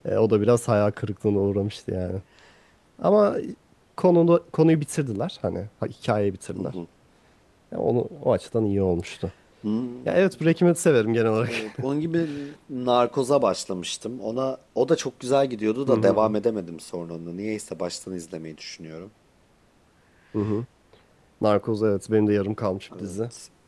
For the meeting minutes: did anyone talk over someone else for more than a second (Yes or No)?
No